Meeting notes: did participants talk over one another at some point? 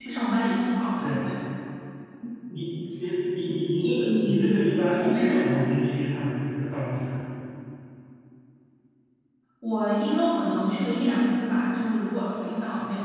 Yes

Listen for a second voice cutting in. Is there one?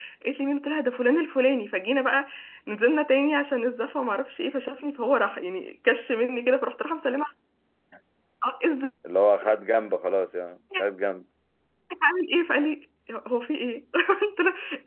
No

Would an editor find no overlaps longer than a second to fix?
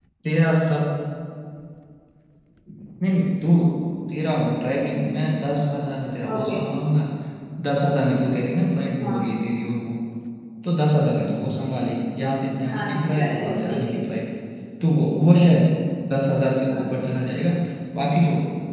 No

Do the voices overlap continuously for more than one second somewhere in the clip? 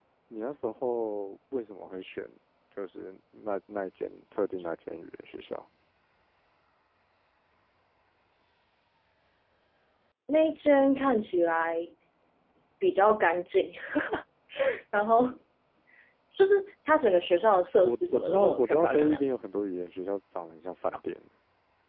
Yes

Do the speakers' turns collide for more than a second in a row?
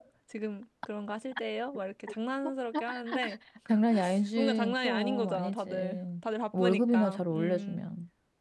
Yes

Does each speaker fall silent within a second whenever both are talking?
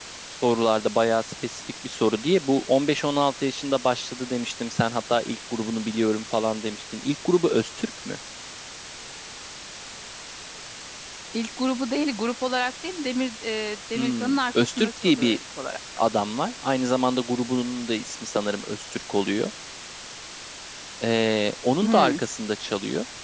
No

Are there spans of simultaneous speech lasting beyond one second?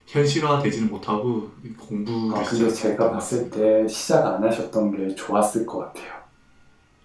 Yes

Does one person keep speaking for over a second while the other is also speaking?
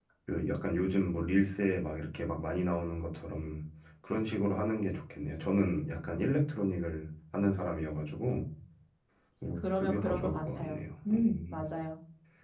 Yes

